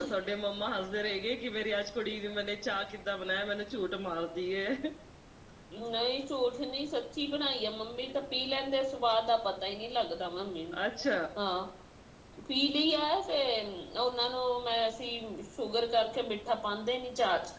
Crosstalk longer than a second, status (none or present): none